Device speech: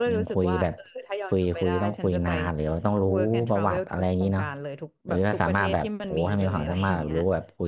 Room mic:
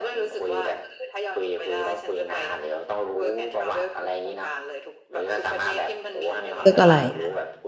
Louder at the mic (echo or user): user